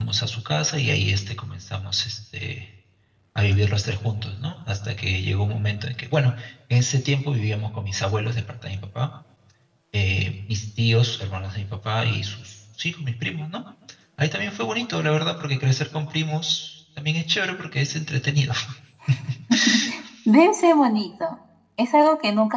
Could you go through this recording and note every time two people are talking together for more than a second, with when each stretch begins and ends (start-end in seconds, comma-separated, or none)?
none